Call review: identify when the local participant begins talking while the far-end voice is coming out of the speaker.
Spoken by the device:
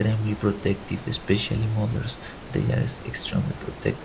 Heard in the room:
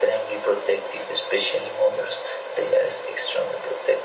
none

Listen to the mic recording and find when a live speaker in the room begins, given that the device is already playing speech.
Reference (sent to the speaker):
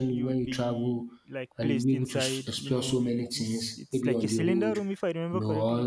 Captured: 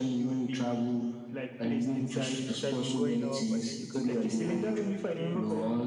2.4 s

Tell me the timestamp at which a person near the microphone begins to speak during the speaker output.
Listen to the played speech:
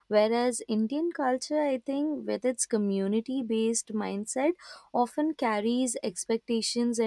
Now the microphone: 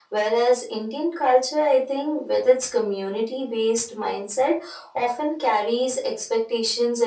none

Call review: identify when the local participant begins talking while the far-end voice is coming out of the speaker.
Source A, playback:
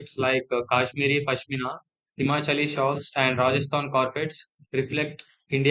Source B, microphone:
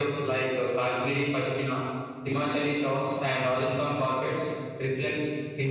none

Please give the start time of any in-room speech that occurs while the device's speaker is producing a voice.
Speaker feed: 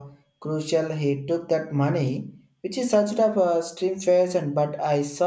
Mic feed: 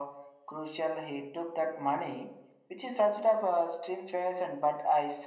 none

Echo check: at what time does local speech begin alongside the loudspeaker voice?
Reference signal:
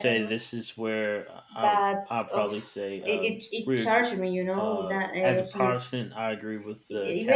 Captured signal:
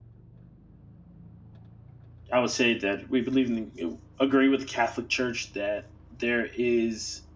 2.3 s

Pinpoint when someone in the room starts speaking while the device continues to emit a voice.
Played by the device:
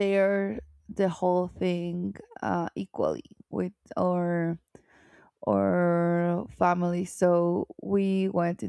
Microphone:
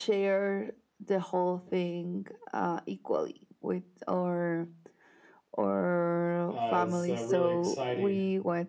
6.5 s

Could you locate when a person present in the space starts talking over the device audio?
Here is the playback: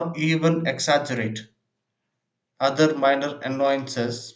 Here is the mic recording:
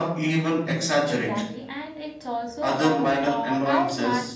1.0 s

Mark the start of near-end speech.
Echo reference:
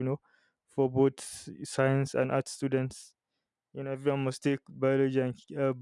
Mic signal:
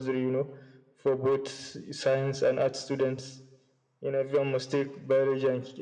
none

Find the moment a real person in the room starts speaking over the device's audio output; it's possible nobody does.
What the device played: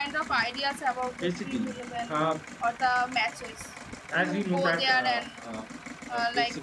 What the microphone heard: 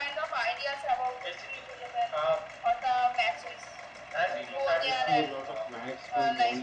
4.3 s

